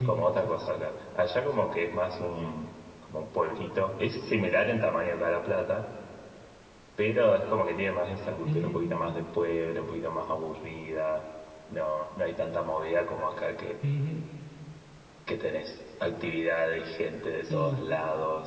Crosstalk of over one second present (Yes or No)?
No